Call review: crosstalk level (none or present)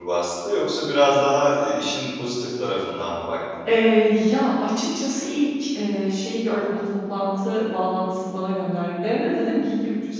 none